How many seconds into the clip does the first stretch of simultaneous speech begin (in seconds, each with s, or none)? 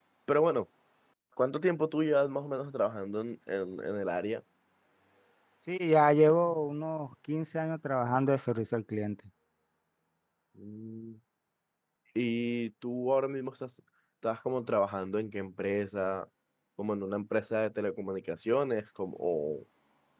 none